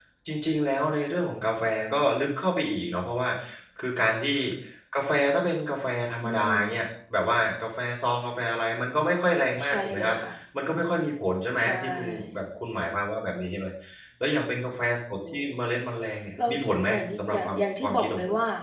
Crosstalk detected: Yes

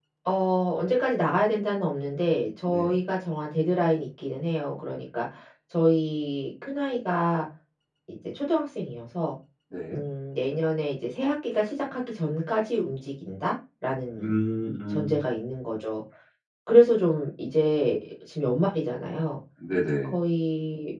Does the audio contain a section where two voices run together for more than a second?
No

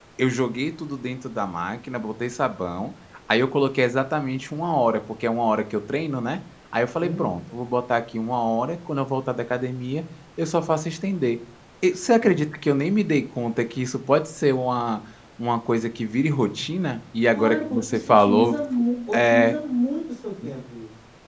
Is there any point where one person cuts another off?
Yes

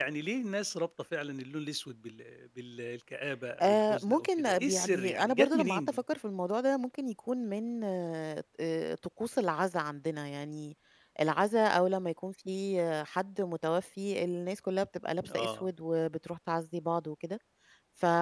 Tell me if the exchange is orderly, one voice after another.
No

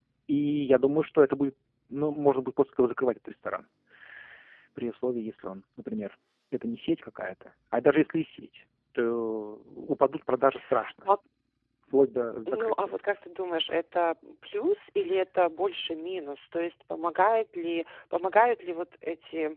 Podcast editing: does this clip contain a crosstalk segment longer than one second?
No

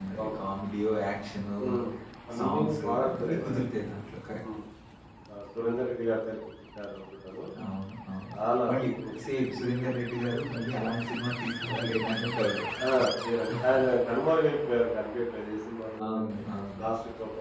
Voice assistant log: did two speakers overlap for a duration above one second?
Yes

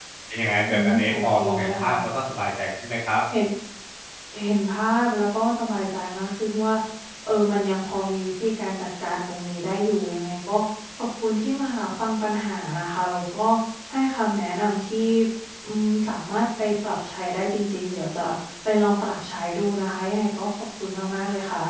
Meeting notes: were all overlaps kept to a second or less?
No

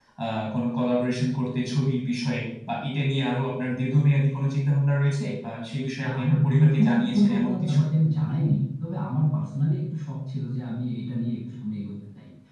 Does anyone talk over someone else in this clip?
Yes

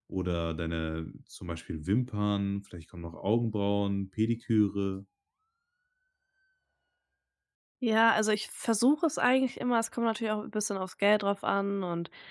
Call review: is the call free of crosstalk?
Yes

